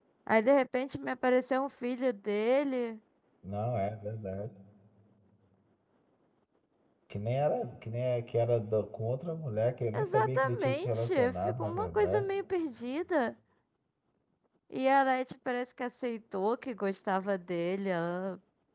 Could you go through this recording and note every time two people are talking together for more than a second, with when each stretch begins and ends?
9.9-12.2

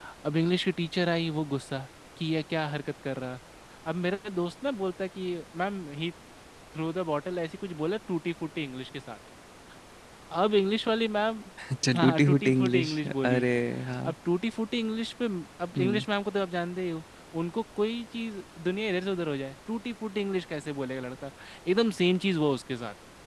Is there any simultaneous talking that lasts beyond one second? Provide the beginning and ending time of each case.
12.0-13.4

